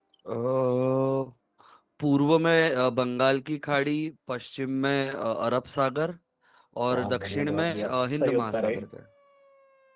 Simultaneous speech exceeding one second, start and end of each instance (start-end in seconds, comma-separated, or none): 6.9-8.7